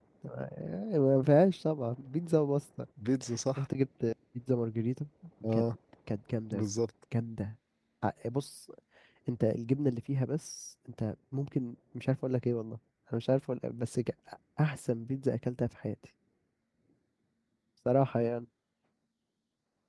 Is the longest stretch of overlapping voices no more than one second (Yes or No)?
Yes